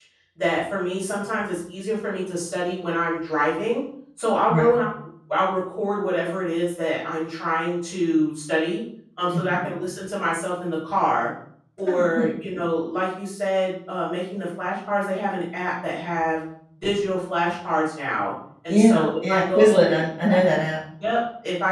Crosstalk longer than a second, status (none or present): present